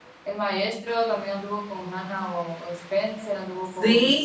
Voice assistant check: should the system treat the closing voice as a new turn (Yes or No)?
Yes